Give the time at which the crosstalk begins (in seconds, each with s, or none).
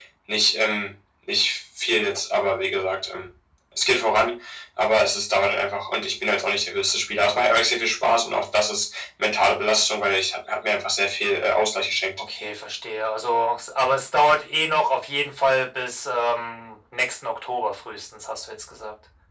none